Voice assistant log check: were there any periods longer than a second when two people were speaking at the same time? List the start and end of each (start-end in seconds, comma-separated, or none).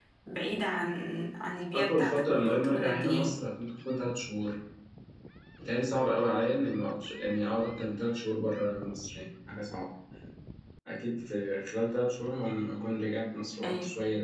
1.7-3.4